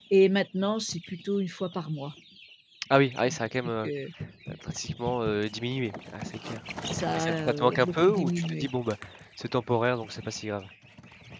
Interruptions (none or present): present